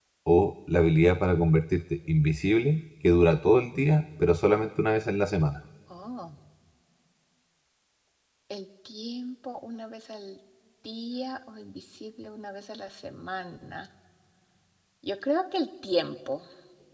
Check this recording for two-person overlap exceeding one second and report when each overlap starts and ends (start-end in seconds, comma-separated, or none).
none